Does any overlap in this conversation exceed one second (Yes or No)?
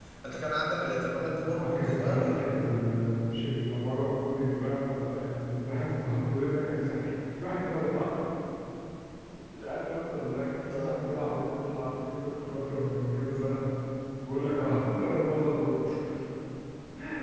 Yes